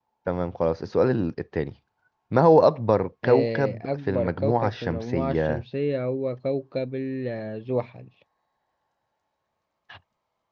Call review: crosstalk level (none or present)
present